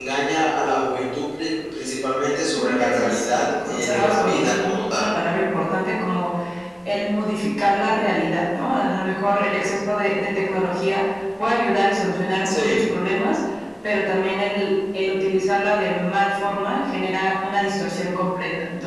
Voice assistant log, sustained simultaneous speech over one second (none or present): present